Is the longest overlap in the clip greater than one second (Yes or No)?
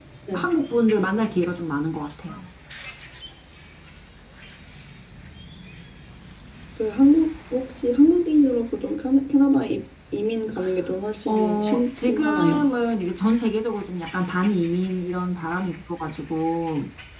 Yes